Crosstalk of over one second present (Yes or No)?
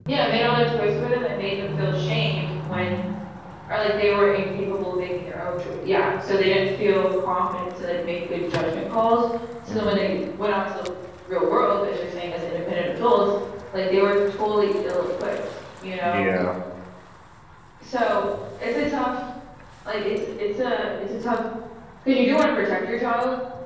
No